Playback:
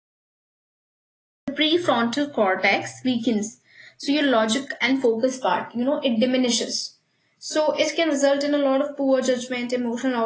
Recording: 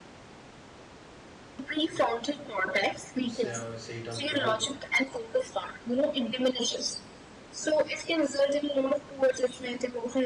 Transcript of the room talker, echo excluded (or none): say, uh, say it out loud